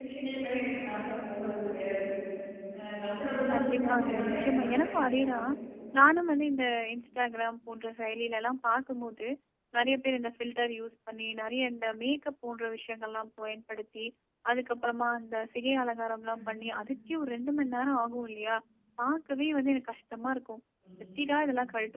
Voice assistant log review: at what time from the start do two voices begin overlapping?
4 s

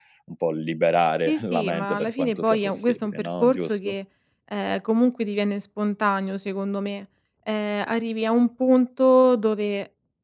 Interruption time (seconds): 1 s

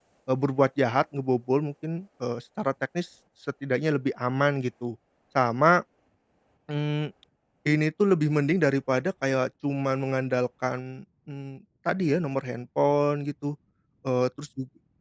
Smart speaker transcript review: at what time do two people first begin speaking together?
none

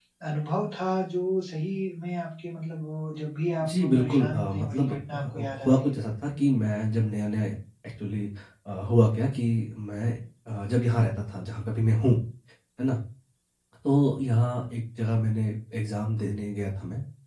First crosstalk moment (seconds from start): 4 s

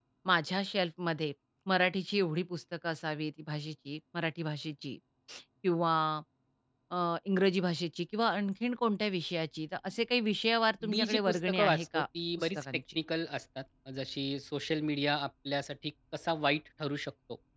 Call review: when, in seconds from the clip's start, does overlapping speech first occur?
11 s

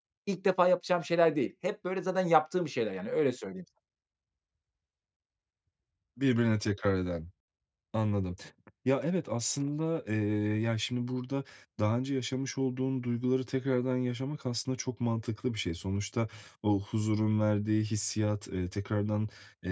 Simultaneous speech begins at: none

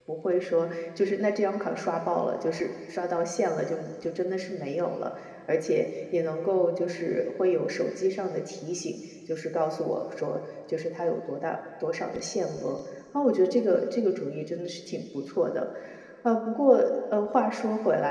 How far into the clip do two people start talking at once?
none

